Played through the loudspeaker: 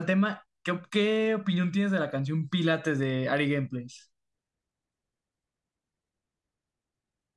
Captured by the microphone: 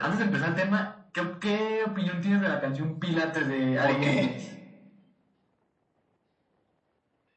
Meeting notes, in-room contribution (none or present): present